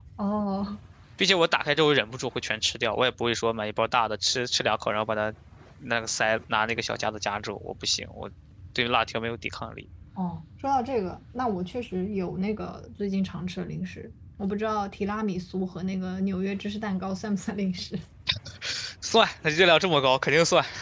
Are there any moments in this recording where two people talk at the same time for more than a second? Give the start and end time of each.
none

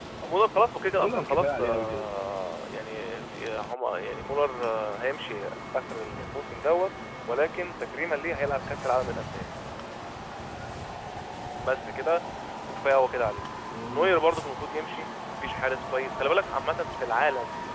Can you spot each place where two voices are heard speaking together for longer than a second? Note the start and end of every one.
1.0-2.3

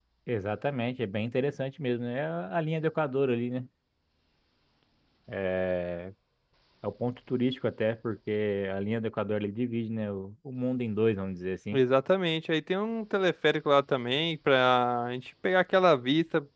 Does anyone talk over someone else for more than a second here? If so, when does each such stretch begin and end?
none

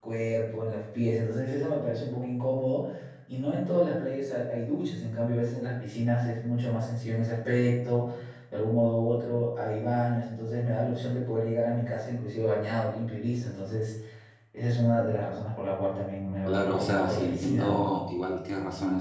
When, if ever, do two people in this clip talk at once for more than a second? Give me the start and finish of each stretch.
16.5-17.8

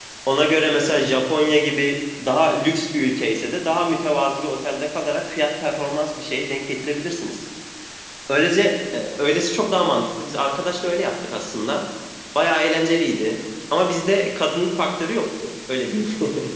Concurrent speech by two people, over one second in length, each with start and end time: none

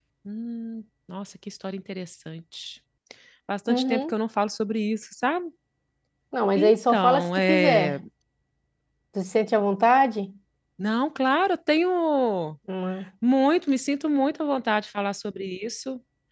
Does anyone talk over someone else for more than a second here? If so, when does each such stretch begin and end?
6.6-8.0

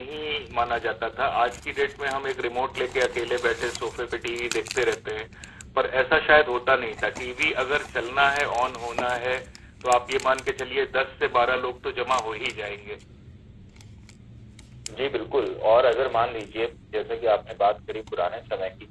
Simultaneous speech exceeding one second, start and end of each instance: none

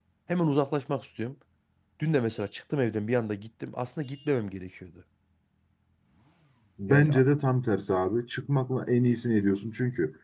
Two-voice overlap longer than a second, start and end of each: none

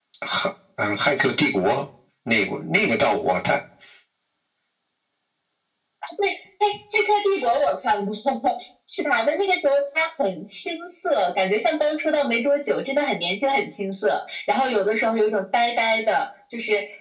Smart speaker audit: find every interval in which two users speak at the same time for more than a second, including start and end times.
none

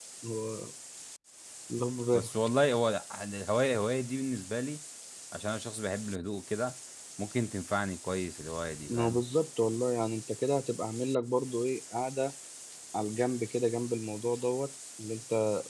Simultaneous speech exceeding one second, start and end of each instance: none

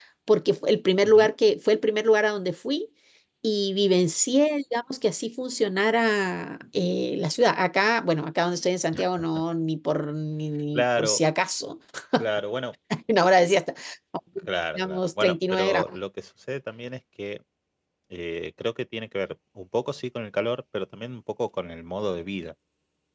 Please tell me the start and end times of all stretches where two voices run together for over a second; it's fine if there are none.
14.8-15.9

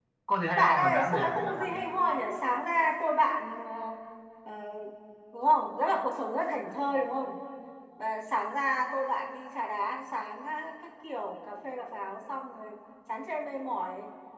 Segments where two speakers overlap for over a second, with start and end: 0.5-1.8

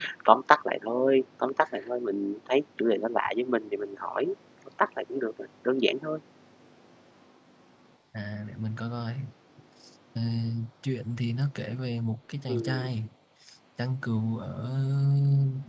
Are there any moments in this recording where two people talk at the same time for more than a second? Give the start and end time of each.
none

